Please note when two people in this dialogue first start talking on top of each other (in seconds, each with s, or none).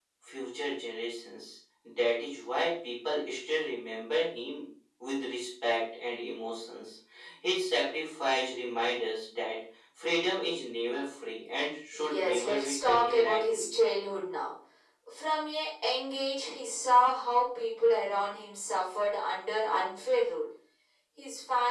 11.9 s